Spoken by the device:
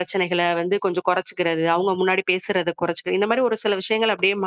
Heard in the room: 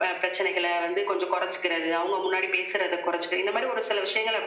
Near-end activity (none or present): none